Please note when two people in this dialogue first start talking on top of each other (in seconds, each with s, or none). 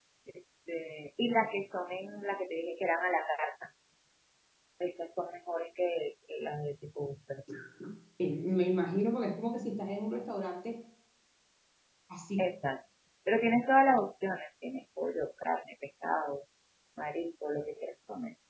none